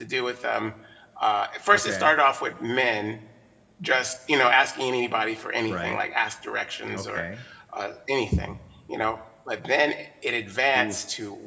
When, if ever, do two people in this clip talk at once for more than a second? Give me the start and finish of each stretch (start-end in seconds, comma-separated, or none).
none